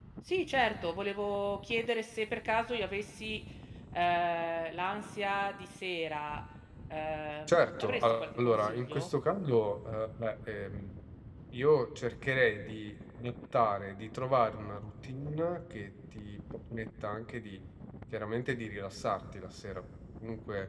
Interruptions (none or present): present